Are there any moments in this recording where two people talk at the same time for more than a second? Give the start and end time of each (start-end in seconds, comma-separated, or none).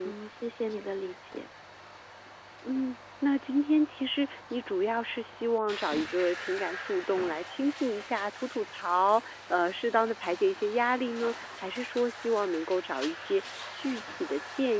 none